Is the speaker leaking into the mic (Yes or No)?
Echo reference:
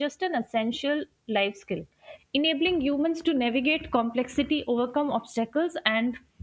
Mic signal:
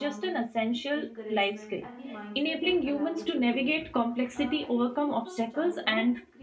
Yes